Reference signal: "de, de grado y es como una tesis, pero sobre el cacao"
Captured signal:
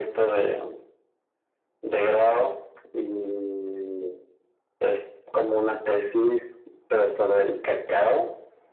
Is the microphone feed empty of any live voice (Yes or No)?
Yes